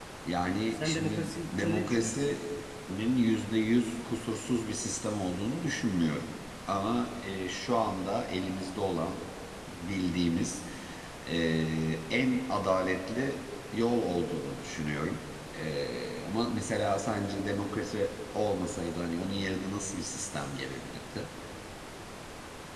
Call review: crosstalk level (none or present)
present